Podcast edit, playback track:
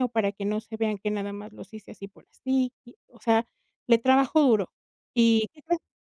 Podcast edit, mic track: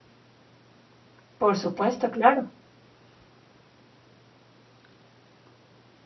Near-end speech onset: 1.4 s

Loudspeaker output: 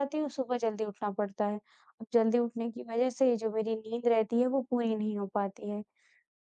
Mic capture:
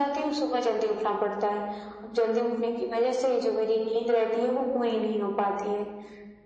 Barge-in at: none

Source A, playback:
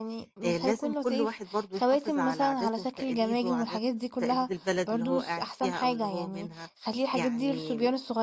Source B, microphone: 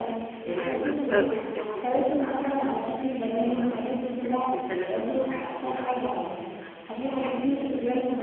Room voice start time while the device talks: 0.5 s

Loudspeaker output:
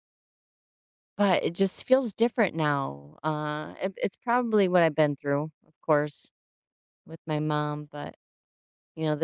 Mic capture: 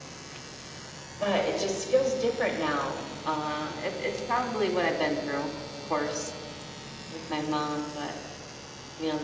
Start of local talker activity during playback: none

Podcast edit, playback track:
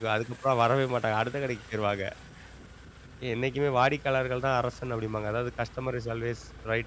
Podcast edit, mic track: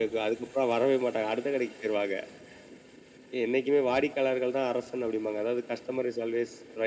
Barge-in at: none

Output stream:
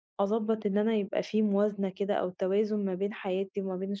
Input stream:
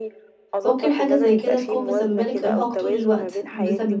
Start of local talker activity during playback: 0.6 s

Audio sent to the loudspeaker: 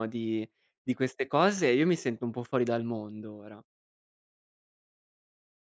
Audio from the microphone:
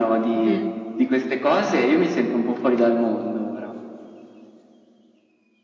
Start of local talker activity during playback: 0.3 s

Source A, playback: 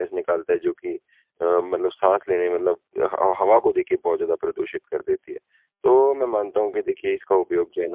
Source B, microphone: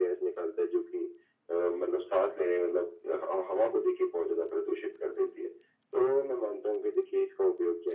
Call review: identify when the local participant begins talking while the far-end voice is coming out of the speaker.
none

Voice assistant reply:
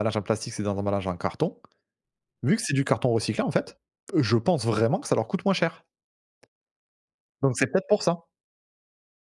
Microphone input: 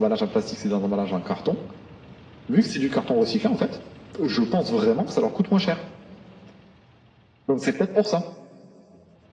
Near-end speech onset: none

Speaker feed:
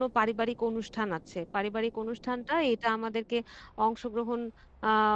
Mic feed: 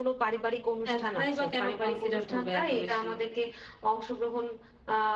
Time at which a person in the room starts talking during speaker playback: 0.8 s

